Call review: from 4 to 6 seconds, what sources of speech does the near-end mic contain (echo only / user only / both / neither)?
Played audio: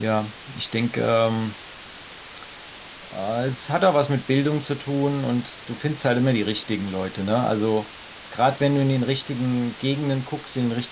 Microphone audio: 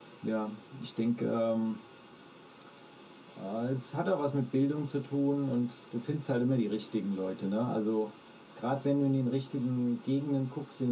echo only